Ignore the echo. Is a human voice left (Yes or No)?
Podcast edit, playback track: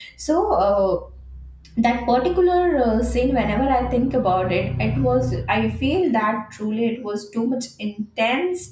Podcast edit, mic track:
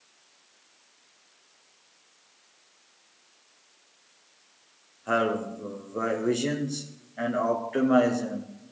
Yes